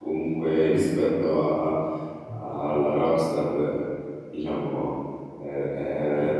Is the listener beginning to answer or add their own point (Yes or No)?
No